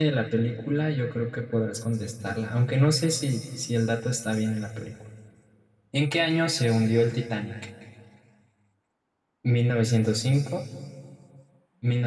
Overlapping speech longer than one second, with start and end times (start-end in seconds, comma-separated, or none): none